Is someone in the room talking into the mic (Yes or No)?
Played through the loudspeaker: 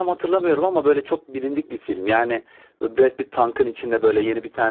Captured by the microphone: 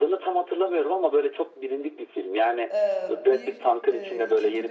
Yes